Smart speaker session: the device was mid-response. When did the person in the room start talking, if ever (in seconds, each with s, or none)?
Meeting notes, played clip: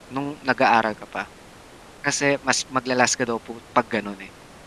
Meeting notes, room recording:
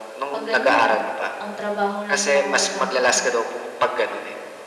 0.3 s